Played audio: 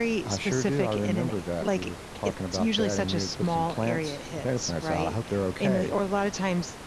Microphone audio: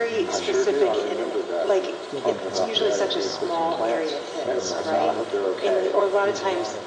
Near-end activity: present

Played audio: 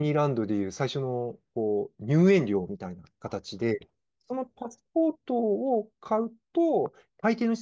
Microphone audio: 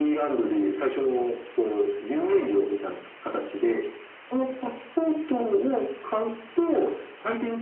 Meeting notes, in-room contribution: none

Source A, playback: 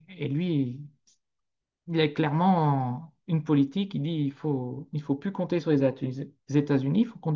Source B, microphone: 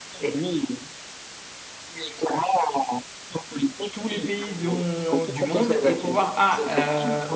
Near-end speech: present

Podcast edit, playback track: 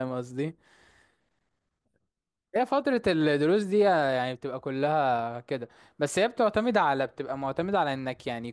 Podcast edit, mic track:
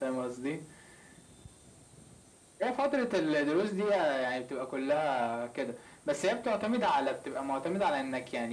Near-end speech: none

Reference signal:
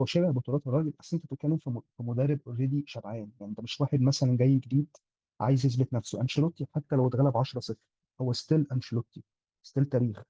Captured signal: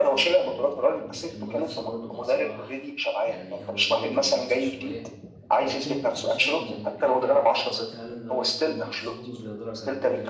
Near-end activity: present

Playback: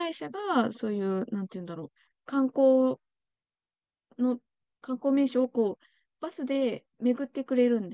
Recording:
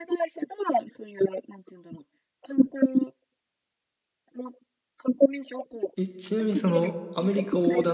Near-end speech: present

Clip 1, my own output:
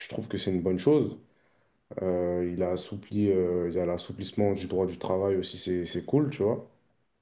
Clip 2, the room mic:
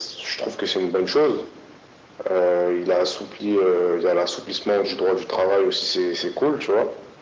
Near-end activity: none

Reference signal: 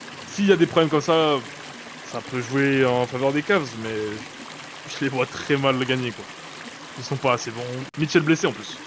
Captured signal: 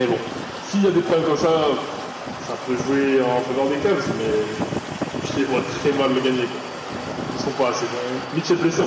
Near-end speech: none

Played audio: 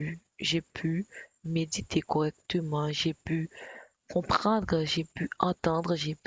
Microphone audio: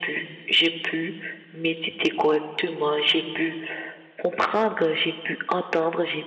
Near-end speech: none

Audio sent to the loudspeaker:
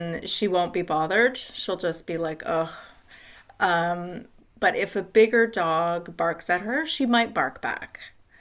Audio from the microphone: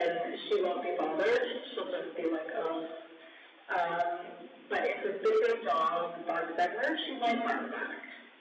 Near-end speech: none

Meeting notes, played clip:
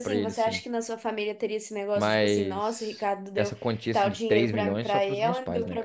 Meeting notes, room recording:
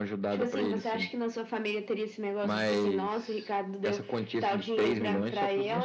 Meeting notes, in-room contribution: none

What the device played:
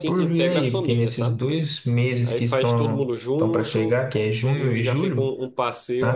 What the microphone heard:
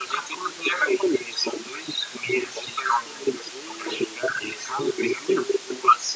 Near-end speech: none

